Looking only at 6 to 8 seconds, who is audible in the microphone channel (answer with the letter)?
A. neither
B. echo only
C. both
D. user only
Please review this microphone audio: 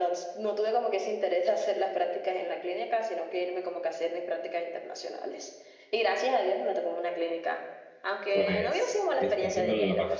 B